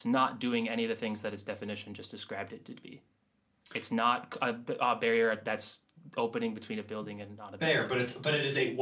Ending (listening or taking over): taking over